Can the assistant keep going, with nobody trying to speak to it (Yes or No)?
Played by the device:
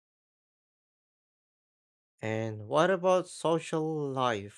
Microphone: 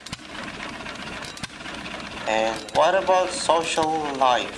Yes